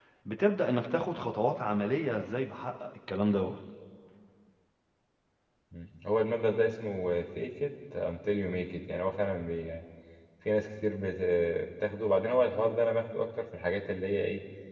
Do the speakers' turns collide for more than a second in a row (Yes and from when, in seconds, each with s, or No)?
No